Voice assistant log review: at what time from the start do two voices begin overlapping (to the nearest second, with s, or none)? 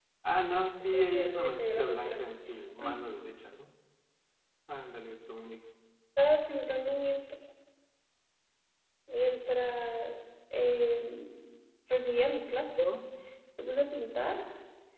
1 s